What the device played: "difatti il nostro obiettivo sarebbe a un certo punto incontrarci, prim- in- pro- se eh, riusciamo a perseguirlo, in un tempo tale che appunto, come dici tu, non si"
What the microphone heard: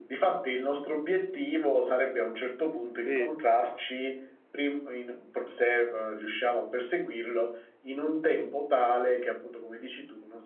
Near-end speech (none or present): present